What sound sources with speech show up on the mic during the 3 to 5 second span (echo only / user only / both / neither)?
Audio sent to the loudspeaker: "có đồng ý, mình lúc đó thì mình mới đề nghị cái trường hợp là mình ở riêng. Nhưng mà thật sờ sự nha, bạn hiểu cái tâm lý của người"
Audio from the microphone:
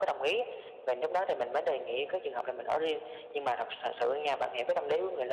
echo only